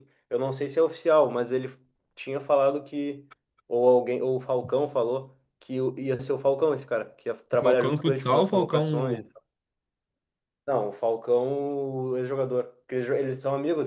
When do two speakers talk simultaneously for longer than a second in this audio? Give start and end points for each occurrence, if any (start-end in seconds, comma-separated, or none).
7.5-9.2